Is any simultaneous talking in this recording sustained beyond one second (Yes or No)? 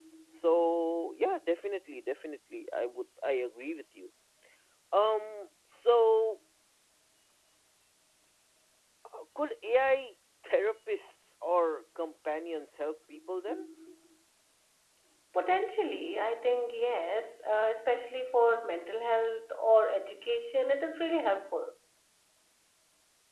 No